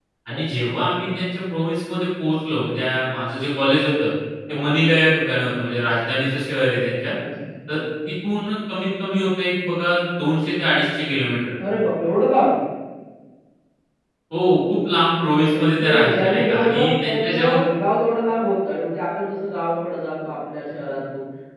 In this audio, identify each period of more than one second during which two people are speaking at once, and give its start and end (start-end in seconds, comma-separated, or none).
15.4-17.5